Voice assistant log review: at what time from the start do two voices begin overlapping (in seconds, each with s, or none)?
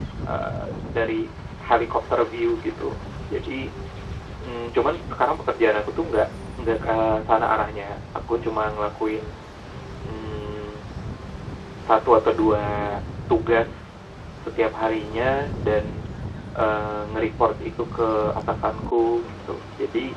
none